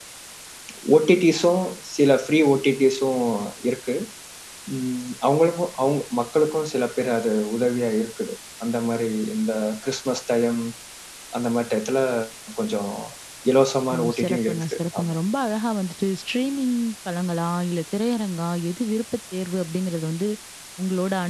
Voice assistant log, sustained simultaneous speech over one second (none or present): present